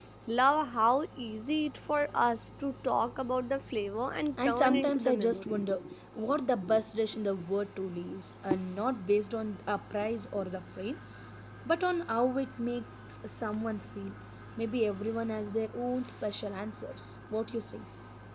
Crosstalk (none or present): present